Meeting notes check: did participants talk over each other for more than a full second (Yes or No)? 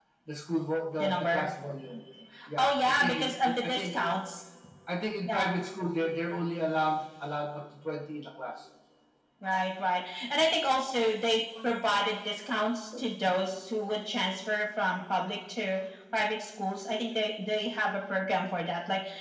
Yes